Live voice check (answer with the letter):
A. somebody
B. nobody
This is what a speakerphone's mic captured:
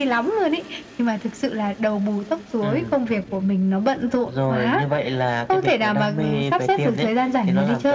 B